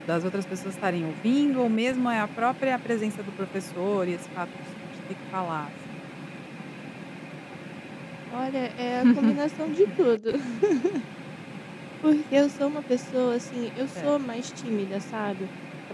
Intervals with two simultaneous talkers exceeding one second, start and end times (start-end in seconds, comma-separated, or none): none